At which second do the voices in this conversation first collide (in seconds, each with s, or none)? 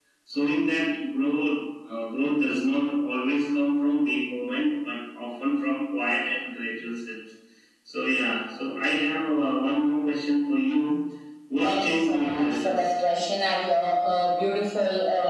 11.6 s